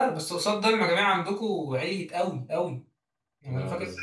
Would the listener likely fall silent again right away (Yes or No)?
Yes